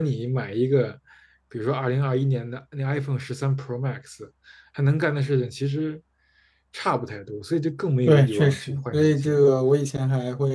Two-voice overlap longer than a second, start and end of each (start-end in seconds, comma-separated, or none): 8.1-9.4